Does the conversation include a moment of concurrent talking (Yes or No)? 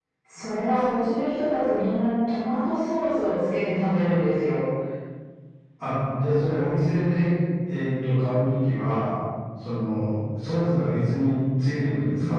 No